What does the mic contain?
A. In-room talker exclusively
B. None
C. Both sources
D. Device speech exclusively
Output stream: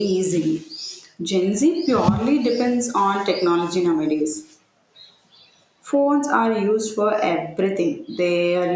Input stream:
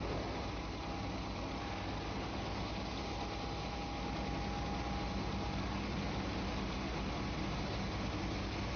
B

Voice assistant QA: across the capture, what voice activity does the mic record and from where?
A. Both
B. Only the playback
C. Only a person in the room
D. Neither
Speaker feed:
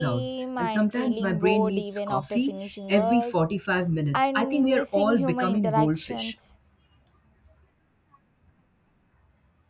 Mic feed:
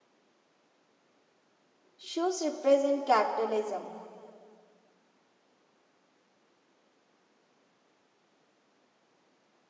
C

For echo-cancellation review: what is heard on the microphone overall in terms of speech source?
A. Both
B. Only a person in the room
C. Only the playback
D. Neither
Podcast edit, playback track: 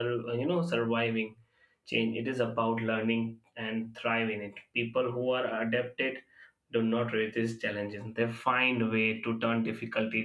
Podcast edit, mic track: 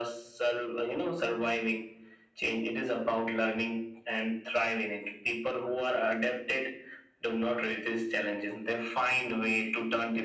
C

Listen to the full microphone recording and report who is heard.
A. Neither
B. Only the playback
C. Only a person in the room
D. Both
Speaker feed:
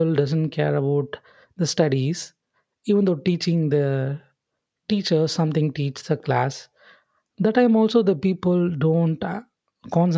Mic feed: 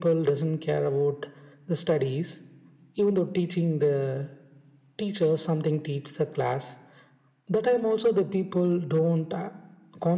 B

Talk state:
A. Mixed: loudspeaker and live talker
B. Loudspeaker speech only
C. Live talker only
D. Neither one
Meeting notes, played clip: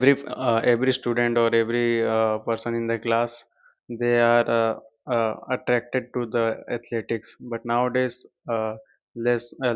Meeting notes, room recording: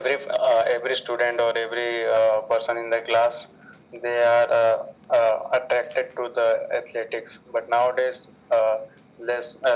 B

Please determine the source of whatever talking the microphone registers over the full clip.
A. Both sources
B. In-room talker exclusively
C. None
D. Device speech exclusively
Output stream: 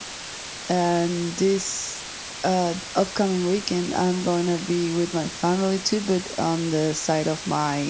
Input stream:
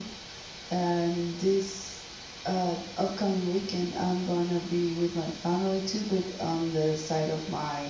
D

